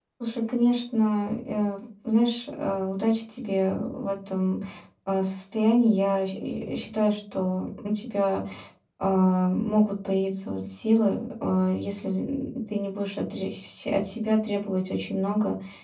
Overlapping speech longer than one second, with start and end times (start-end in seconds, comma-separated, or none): none